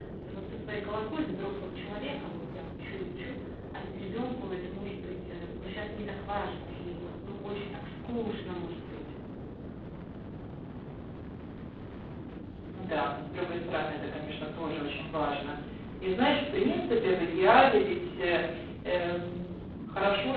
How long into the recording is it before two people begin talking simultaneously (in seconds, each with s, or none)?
none